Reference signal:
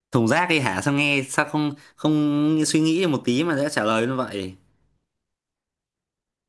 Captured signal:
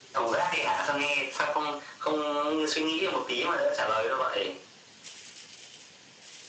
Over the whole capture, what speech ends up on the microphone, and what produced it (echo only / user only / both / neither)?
echo only